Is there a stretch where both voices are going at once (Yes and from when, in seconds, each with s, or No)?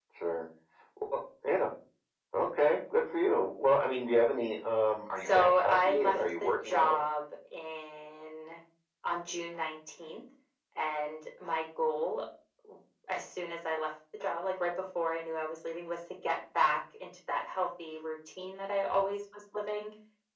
Yes, from 5.2 s